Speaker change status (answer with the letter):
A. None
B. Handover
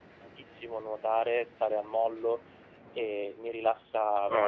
B